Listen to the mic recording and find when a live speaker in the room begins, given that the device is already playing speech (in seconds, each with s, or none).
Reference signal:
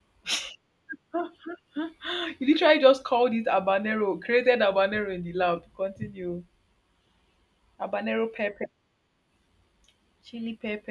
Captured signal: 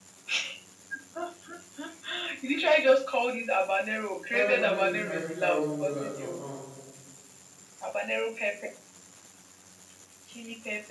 4.2 s